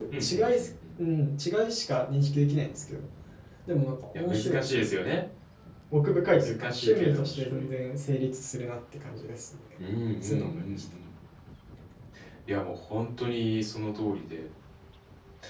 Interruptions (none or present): present